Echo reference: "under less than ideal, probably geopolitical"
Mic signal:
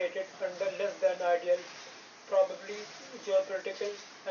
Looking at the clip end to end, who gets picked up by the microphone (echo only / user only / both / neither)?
echo only